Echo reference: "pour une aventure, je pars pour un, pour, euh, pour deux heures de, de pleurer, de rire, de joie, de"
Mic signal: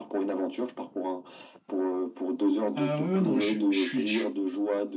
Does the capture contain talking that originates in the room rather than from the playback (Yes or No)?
Yes